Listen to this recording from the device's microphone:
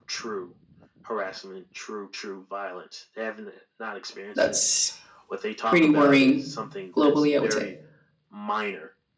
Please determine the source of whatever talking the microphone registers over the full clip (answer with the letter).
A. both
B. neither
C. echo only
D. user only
A